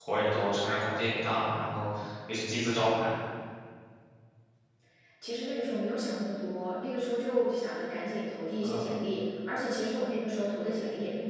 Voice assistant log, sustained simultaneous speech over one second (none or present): none